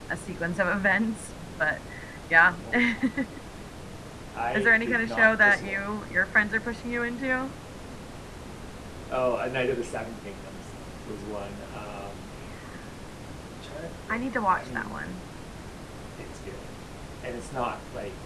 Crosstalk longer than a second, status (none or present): present